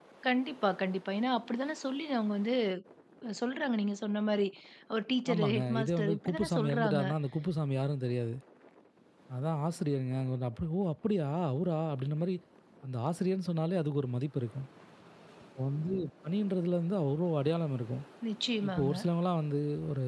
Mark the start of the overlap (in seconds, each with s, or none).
5.3 s